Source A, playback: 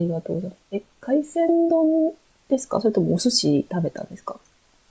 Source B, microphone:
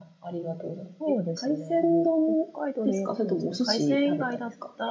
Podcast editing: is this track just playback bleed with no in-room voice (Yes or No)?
No